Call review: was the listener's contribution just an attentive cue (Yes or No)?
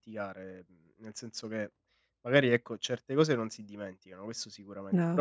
Yes